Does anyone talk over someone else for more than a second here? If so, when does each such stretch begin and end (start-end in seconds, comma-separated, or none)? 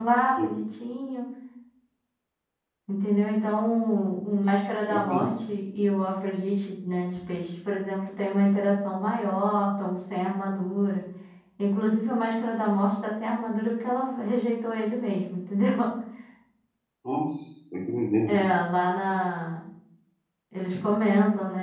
none